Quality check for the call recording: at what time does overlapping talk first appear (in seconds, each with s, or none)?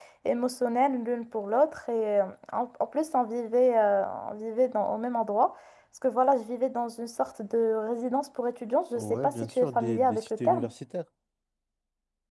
8.9 s